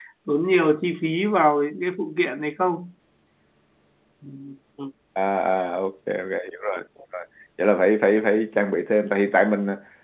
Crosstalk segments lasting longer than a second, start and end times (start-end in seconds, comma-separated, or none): none